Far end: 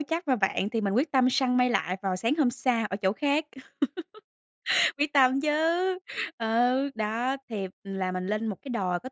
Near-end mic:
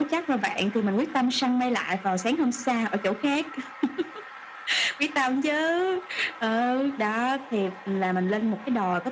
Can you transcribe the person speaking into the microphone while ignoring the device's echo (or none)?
none